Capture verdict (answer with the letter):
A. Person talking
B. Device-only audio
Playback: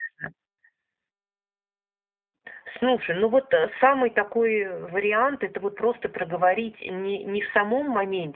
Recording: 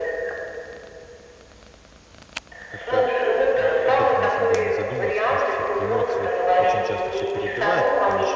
A